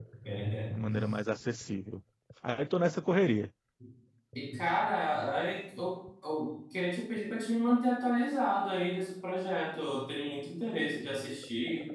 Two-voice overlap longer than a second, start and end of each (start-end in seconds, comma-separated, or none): none